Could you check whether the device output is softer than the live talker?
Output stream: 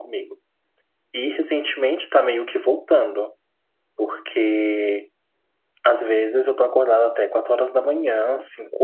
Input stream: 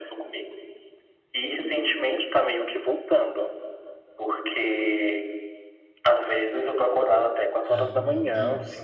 No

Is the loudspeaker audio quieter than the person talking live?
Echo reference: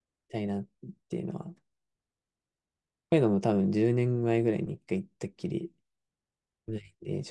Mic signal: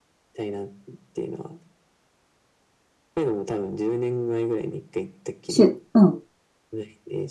Yes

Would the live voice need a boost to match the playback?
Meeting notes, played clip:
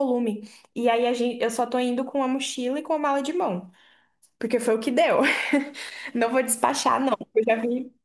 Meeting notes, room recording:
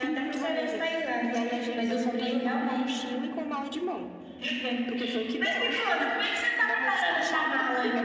No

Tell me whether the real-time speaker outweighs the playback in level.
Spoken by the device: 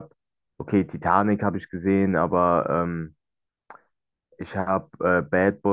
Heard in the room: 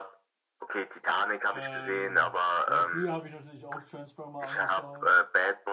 No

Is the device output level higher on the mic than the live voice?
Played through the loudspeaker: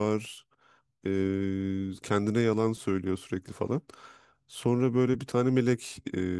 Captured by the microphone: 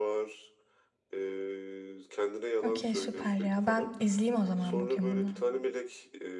No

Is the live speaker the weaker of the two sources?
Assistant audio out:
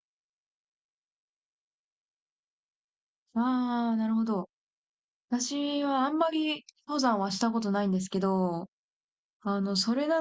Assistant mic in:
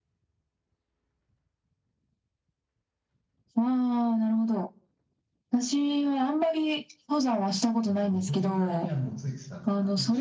Yes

